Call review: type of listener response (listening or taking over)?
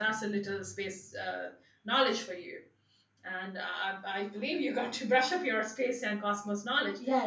taking over